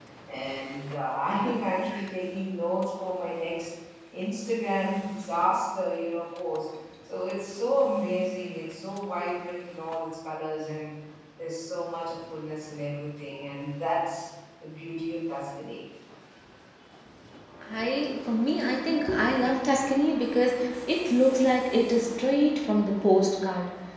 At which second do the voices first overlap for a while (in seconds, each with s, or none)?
none